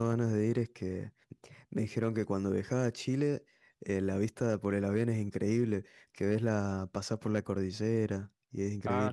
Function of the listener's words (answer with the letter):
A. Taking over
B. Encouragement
A